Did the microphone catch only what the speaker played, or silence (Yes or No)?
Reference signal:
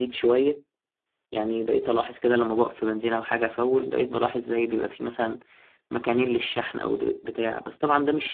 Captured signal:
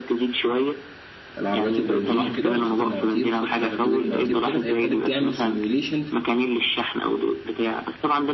No